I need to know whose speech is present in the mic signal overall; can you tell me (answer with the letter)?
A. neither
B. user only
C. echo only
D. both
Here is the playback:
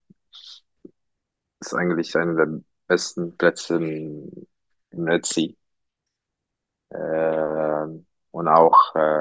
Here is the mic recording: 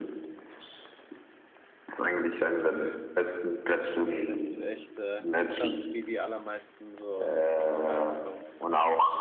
D